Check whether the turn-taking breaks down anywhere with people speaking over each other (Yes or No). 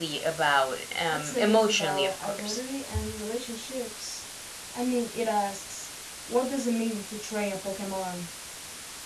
Yes